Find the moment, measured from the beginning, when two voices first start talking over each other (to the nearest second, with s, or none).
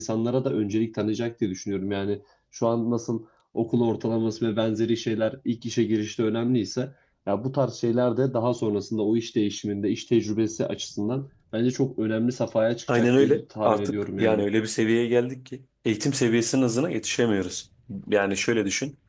13 s